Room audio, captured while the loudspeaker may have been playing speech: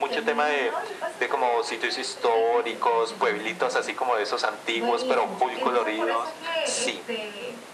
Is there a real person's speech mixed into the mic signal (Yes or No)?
Yes